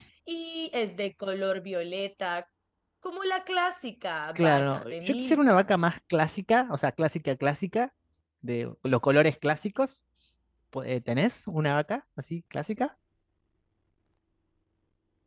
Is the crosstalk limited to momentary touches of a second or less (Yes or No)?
No